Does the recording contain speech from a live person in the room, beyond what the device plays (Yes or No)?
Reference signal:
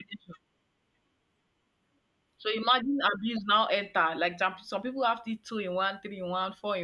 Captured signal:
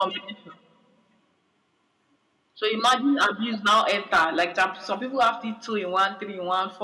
No